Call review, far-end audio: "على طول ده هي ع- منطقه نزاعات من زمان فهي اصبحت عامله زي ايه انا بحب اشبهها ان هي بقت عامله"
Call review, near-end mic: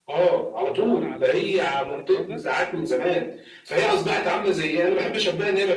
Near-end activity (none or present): present